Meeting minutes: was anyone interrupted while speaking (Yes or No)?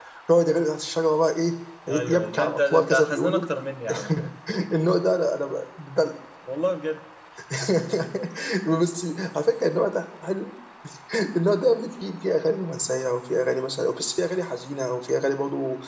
Yes